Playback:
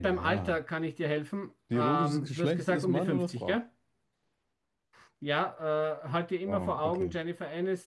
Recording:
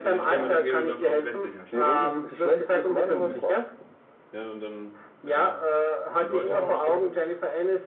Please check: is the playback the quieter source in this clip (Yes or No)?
No